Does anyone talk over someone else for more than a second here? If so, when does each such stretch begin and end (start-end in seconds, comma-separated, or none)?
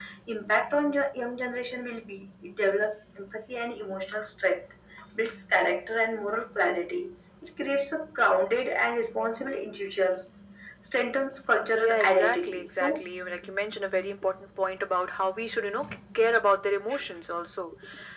11.8-13.0